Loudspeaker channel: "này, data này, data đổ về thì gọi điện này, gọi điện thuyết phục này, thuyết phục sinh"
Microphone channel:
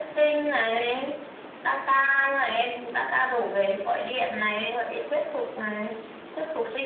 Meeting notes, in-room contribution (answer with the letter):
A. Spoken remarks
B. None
B